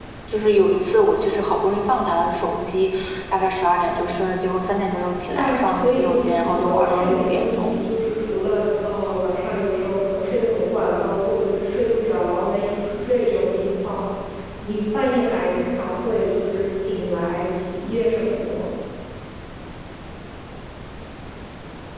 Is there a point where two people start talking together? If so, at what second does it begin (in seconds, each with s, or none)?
5.3 s